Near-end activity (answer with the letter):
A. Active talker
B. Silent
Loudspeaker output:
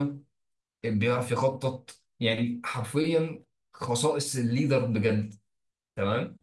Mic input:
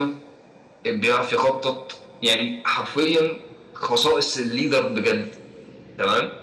B